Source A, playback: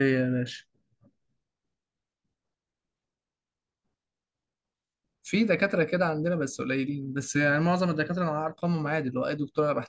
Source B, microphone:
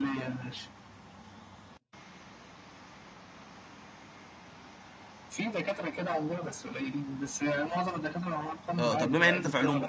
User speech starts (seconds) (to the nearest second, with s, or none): 9 s